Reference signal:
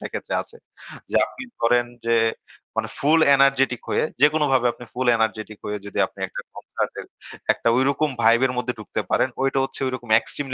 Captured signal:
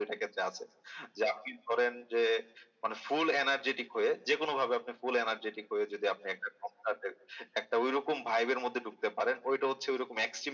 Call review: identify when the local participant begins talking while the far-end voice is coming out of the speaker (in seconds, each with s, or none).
none